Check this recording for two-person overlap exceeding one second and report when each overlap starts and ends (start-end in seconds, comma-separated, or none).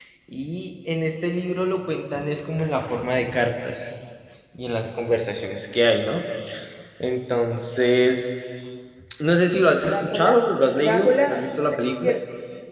10.8-12.1